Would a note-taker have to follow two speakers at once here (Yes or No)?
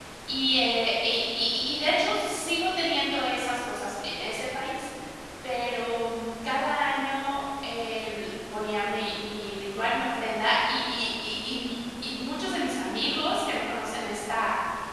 No